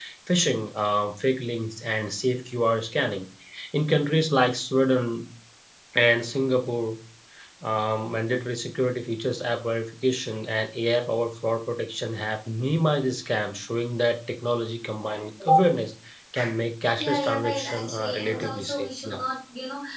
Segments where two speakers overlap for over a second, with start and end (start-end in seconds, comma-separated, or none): 17.0-19.2